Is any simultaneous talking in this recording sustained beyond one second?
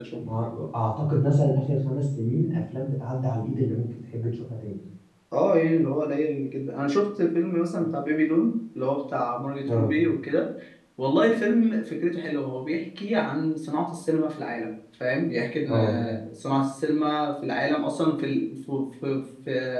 No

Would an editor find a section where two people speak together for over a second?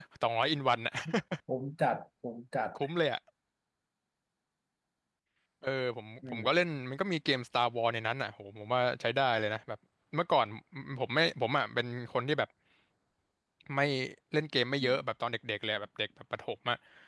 No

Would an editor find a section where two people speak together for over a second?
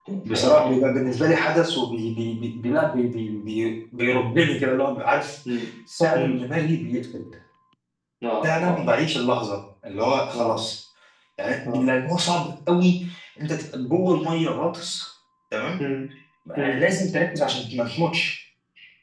No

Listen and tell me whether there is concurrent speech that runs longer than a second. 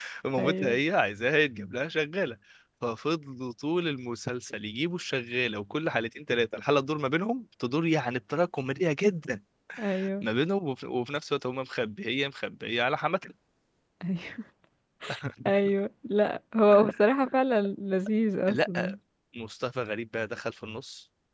No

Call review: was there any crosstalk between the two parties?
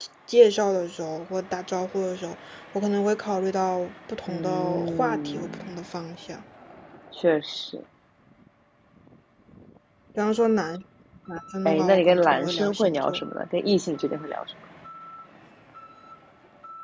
Yes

